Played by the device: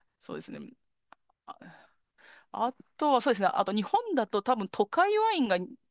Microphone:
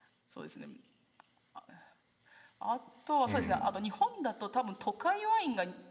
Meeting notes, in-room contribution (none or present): present